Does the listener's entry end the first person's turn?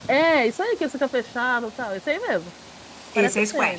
Yes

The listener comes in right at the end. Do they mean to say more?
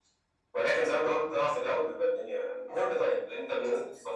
No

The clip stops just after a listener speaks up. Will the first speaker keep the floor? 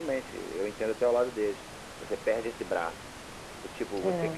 Yes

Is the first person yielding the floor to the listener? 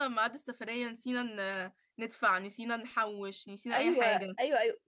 Yes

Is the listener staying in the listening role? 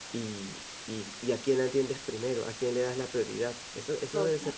No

